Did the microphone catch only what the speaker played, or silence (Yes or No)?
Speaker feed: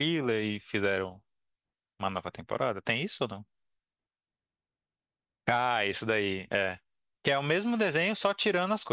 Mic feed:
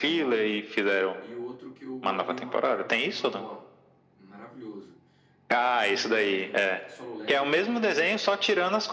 No